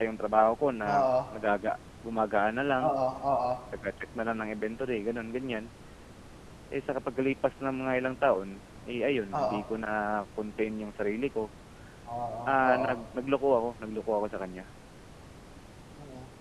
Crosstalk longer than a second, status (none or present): none